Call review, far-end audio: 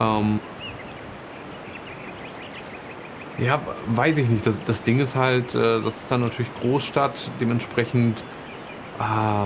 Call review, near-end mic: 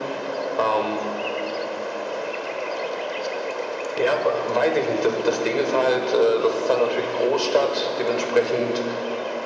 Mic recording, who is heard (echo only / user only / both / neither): echo only